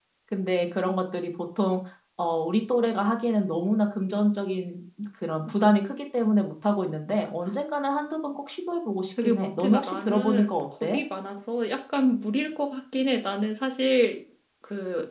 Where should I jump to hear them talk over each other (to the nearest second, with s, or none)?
9 s